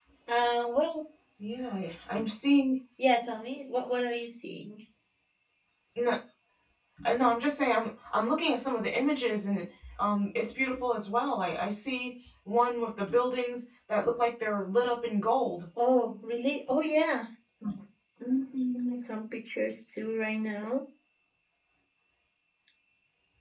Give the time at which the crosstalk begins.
none

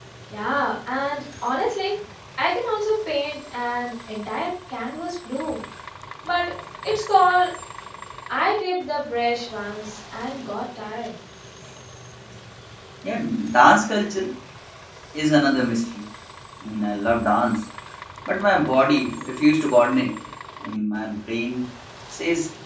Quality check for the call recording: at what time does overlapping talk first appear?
none

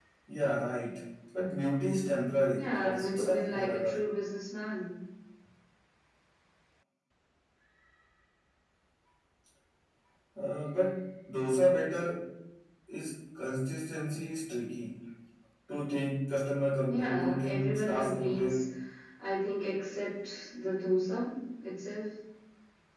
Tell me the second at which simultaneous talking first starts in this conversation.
2.5 s

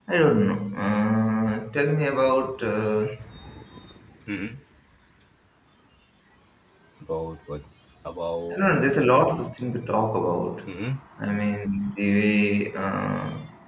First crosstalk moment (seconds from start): none

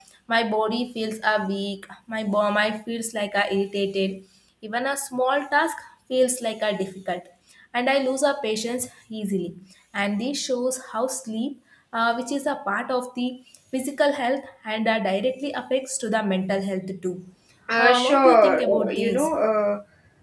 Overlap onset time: 17.8 s

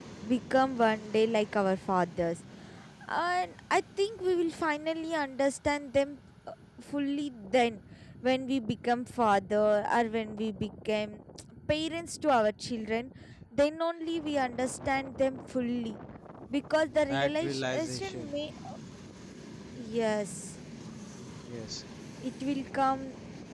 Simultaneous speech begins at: 17.1 s

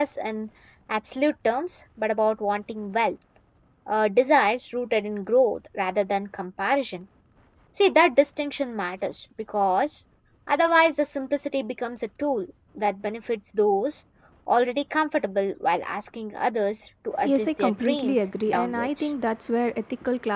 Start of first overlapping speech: 17.2 s

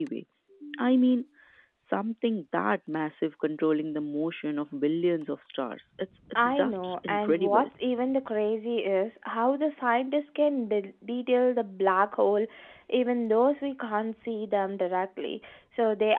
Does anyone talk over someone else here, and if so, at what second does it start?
6.3 s

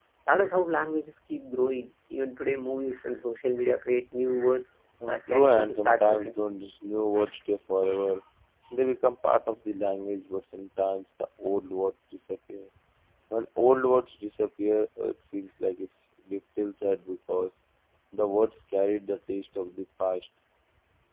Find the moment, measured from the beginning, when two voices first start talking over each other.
5.0 s

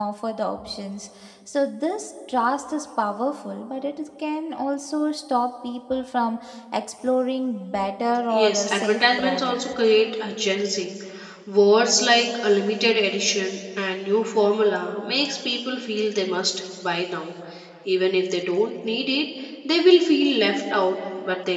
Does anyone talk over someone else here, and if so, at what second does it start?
8.3 s

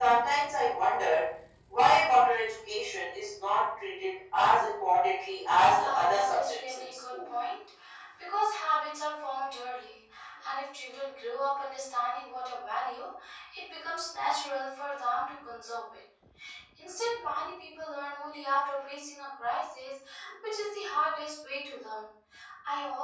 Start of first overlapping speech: 5.7 s

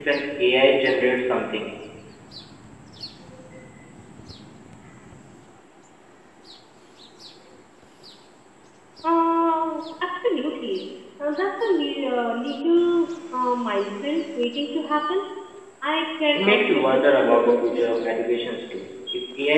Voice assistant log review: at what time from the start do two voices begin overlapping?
16.4 s

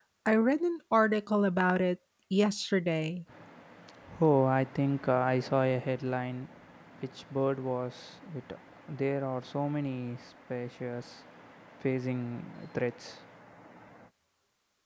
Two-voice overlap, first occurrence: none

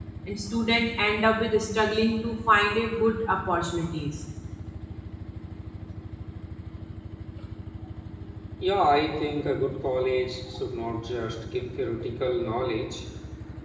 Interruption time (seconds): none

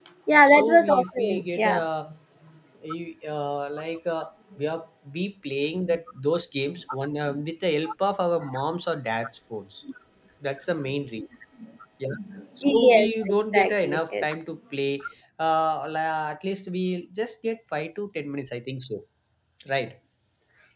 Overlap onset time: 0.5 s

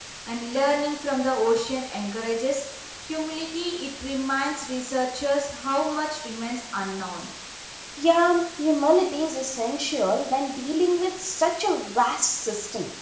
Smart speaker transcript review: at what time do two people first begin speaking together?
none

